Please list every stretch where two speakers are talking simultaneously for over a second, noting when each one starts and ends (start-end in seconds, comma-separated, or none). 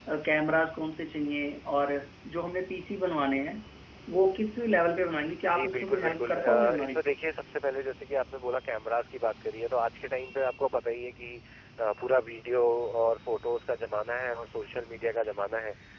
5.5-7.0